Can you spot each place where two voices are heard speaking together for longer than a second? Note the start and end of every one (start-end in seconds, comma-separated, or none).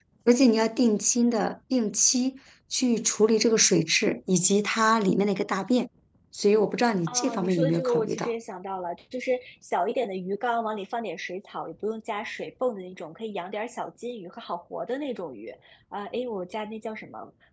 7.1-8.3